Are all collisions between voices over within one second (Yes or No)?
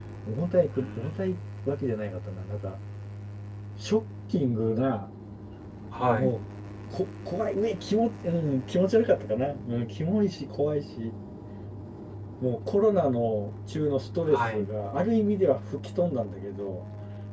Yes